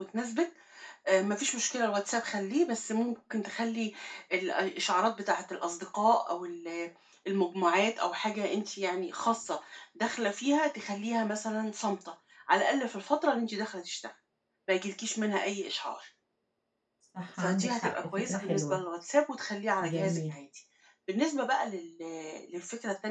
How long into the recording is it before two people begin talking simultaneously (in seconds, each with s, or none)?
17.4 s